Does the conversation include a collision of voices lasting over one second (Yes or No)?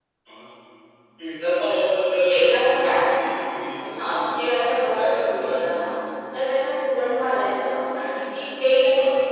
Yes